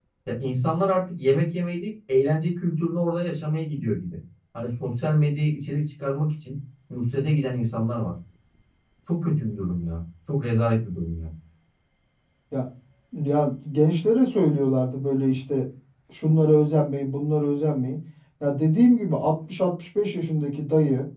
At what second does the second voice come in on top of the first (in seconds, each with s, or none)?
none